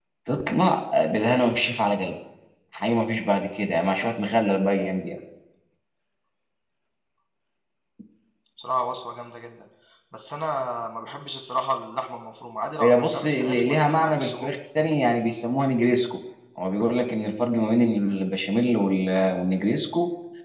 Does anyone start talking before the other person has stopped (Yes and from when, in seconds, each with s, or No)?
Yes, from 12.8 s